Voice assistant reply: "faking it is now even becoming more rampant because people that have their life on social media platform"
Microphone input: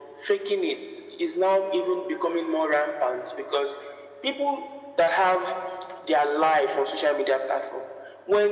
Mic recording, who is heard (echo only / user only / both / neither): echo only